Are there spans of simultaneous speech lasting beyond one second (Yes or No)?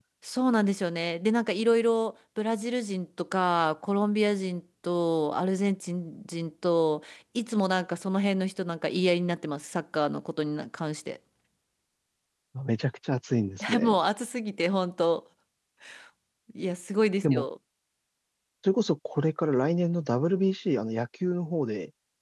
No